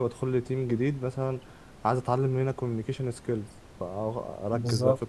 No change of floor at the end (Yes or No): Yes